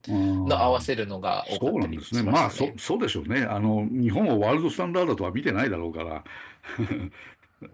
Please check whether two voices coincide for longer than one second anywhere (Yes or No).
Yes